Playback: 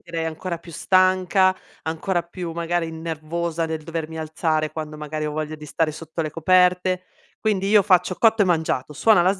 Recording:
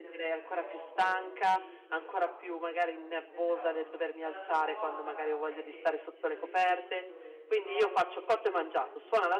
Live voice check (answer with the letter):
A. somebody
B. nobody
A